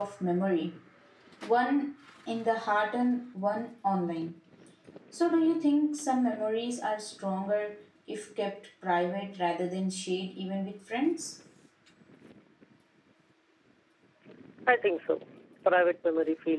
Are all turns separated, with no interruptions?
Yes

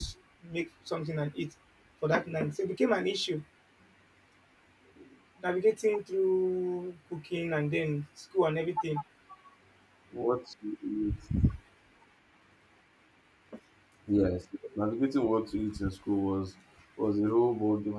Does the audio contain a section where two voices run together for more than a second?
No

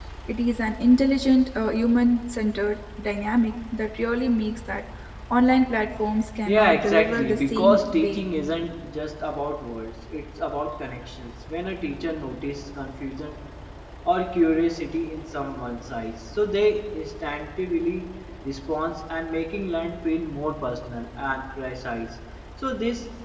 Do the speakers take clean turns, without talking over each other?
No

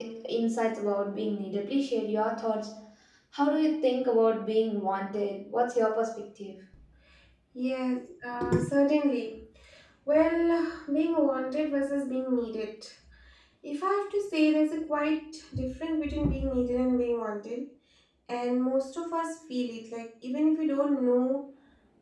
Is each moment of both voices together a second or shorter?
Yes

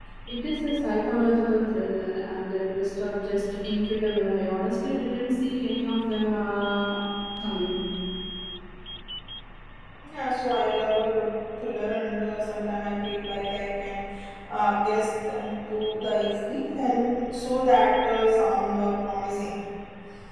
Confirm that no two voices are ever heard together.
Yes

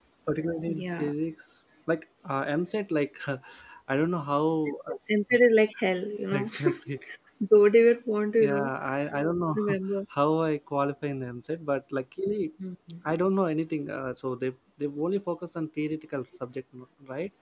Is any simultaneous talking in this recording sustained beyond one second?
No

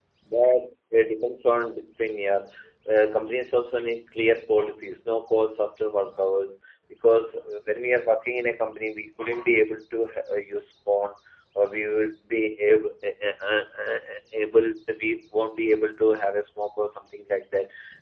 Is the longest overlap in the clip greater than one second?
No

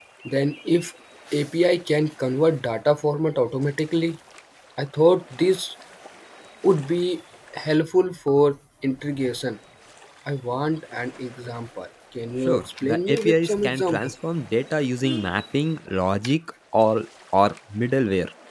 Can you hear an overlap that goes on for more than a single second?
Yes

